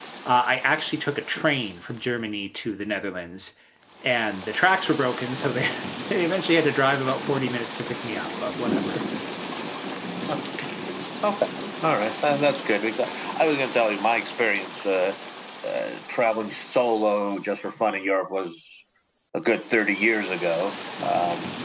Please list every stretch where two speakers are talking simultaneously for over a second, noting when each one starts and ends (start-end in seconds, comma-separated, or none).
none